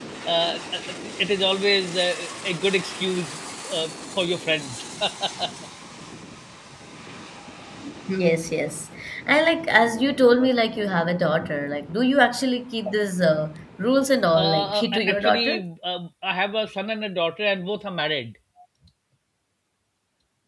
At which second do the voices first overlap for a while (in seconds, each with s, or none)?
14.3 s